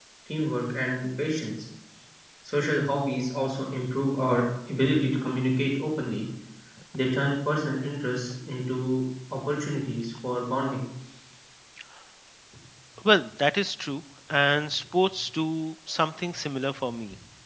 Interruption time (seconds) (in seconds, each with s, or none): none